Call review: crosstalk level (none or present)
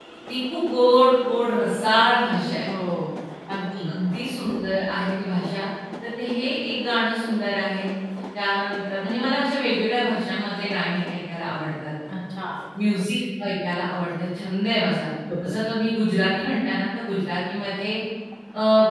none